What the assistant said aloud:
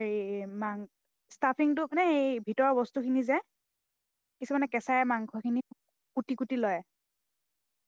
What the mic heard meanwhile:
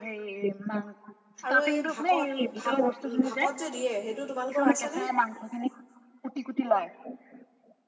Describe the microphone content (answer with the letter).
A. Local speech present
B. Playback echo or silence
A